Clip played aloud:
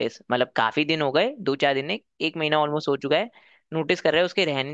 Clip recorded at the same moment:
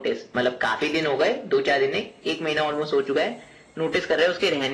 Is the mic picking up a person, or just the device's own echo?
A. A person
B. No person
B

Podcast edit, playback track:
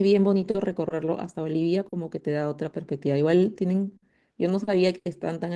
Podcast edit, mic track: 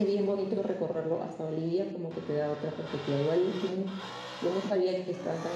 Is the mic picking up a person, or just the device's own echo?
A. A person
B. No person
B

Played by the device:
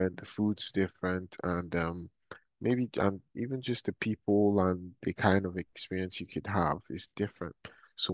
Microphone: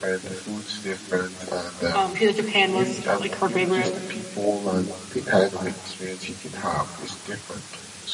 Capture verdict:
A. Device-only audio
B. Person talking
B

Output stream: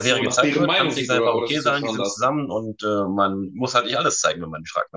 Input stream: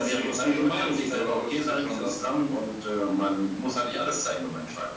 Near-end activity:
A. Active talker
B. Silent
B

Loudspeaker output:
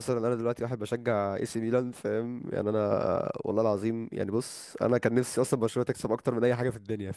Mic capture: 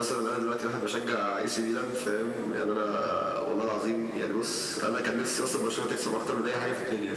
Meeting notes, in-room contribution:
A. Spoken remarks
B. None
A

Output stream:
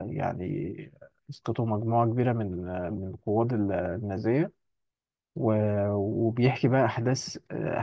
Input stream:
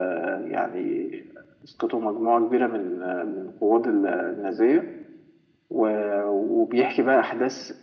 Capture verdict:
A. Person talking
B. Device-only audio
B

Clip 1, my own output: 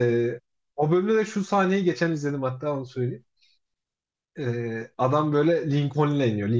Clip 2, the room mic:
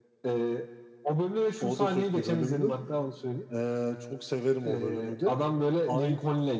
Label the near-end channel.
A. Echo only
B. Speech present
B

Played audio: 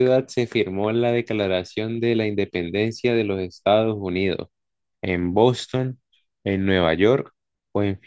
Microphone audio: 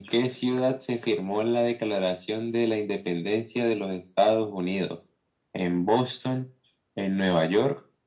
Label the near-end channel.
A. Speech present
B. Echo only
B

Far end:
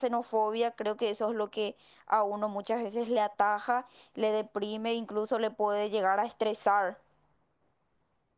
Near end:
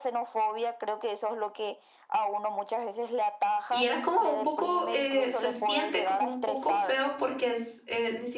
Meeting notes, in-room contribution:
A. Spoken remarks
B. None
A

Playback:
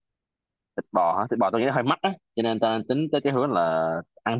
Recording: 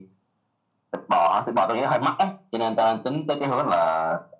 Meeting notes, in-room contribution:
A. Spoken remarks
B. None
B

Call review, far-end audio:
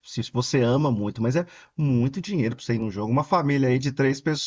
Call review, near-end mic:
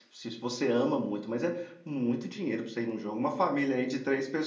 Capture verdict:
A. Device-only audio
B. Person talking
A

